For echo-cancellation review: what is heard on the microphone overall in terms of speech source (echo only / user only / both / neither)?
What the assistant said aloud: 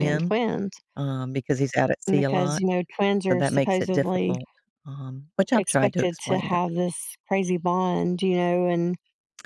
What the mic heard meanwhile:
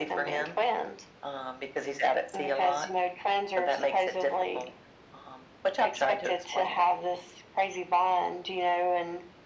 echo only